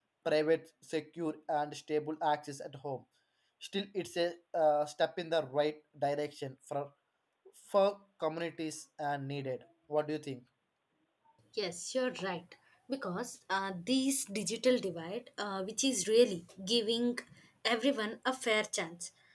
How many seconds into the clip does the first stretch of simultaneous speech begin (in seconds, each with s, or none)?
none